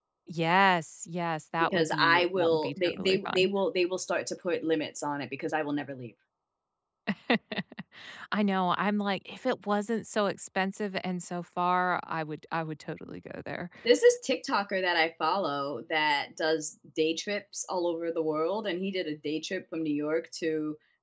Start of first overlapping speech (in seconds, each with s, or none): 1.6 s